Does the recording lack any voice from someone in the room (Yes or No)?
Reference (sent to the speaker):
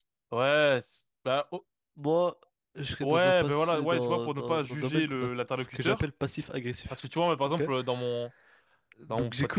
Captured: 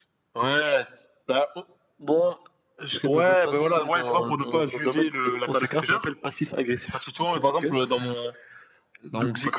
No